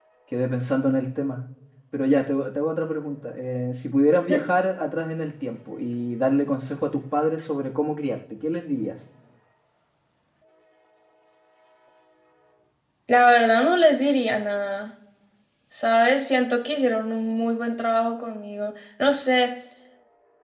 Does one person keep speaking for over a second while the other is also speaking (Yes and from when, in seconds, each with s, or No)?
No